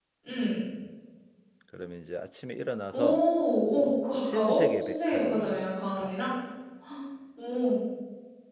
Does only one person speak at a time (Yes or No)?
No